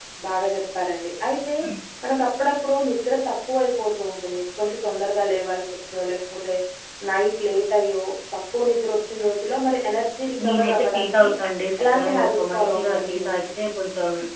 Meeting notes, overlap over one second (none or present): present